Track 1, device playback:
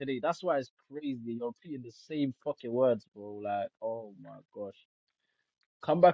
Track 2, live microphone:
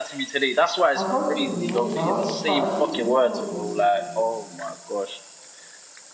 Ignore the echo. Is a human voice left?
Yes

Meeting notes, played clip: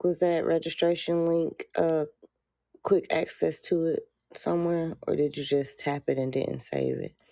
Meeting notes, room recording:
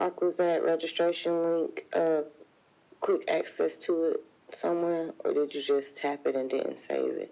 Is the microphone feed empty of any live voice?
Yes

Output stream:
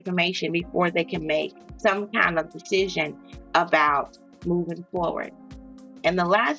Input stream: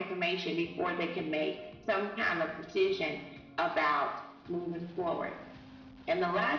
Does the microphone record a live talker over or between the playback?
No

